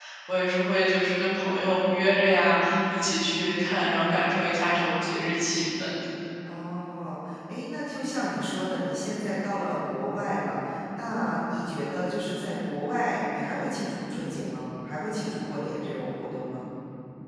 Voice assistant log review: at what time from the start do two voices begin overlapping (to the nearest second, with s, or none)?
none